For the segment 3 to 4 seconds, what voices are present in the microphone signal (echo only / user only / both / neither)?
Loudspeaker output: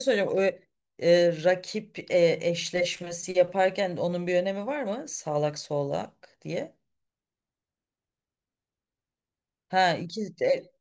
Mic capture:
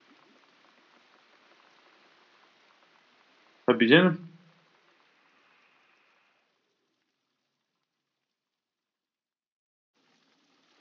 user only